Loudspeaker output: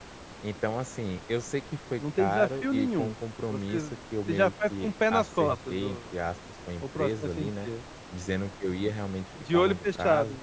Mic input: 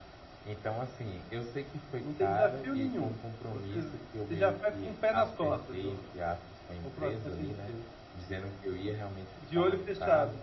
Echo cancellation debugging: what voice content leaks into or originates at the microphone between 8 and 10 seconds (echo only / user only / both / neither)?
echo only